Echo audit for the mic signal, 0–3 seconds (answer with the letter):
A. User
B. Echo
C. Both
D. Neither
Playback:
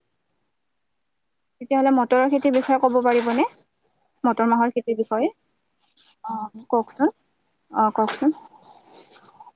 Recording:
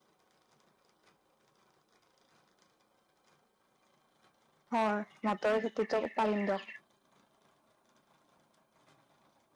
D